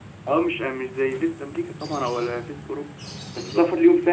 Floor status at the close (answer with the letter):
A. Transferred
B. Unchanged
B